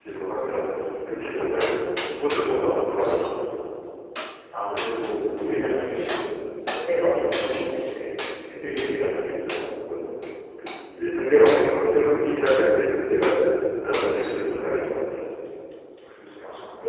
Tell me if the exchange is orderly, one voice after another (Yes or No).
Yes